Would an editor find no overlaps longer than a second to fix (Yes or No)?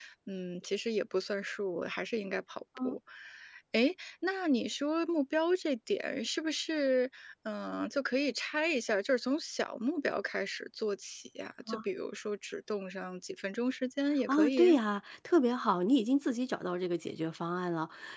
Yes